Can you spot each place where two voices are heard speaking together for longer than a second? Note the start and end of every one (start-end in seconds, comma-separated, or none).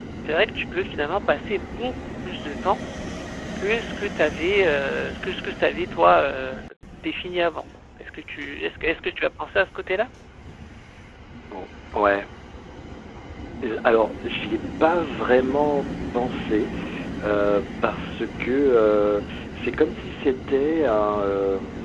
none